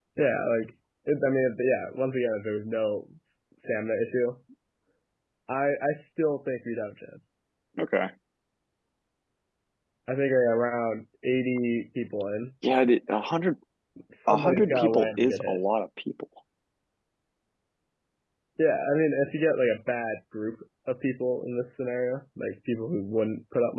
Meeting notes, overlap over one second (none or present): present